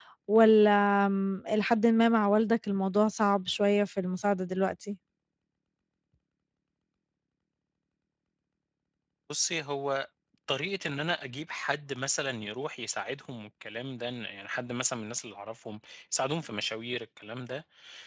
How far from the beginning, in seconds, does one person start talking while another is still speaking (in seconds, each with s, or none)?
none